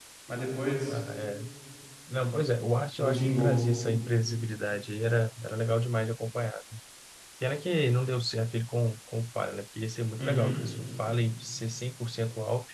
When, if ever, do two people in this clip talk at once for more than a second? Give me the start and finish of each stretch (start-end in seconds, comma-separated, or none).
none